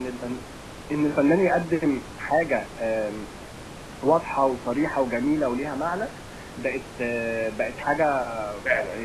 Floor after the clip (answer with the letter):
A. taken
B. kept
B